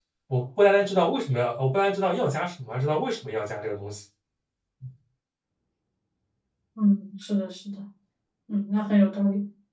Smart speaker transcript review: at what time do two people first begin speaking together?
none

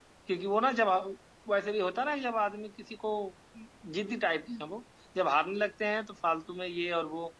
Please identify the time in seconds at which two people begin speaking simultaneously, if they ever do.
none

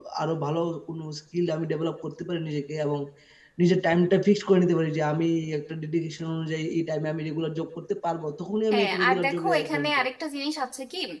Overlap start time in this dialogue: 8.7 s

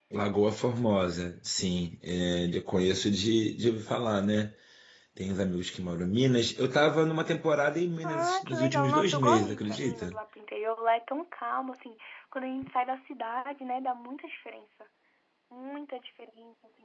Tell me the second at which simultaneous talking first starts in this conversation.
8.0 s

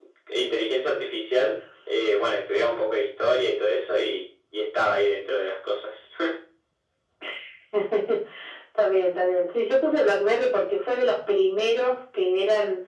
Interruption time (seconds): none

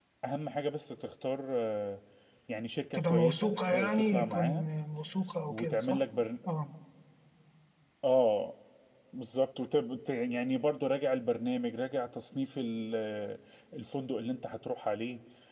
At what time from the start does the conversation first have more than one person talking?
2.9 s

